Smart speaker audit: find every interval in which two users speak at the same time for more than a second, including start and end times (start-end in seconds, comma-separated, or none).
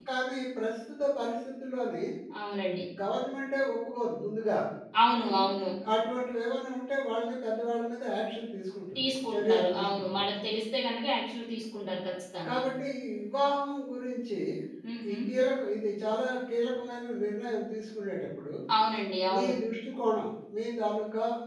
9.0-10.2